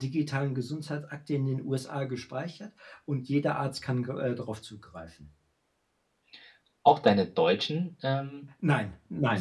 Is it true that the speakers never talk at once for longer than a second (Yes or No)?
Yes